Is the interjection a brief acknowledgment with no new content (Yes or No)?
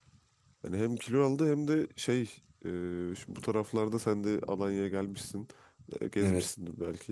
Yes